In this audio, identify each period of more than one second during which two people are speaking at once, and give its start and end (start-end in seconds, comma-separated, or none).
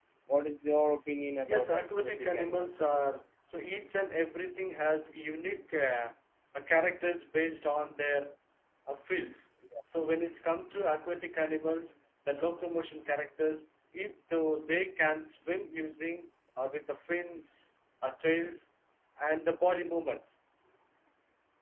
1.5-2.9